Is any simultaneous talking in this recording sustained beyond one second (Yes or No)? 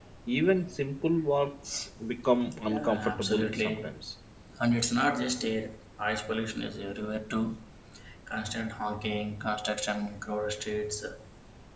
Yes